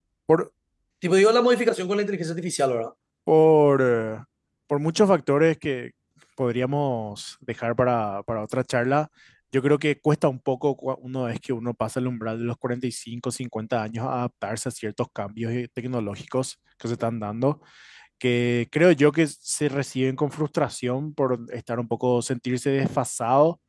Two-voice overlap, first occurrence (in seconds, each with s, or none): none